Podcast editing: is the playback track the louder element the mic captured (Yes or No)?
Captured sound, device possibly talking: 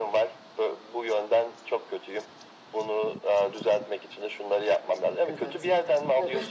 Yes